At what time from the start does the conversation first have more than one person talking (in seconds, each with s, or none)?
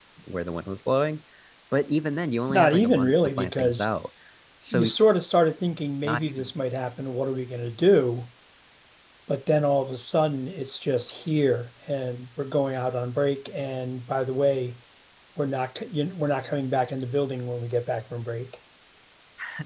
2.5 s